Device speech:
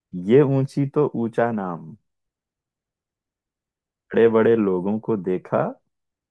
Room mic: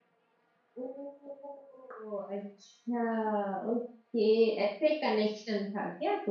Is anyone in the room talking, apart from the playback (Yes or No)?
Yes